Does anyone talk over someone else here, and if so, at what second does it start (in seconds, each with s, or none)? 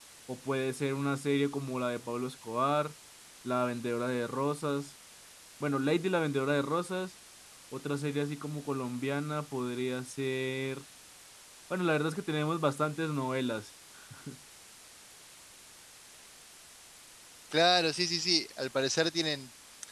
none